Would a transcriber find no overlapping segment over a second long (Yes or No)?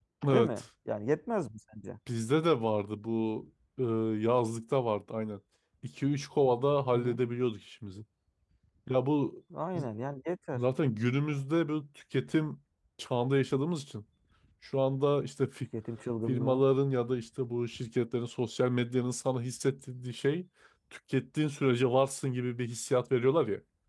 Yes